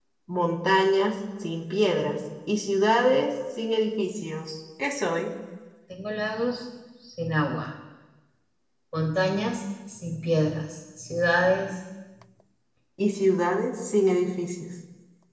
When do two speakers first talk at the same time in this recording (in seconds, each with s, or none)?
none